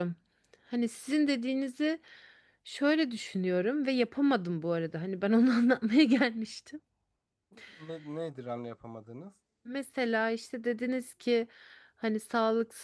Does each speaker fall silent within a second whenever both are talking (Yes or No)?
Yes